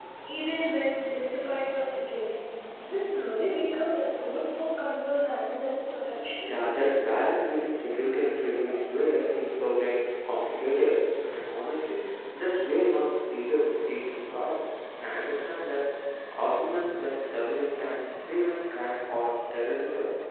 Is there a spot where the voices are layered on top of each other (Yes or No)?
No